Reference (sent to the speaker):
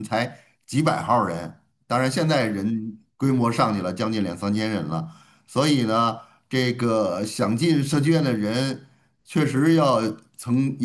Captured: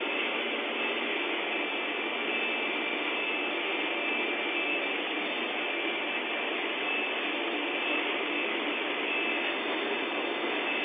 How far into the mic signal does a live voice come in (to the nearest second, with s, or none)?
none